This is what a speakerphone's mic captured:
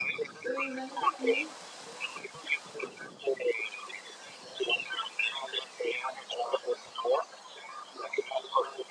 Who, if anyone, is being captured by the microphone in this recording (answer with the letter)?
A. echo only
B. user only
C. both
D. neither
C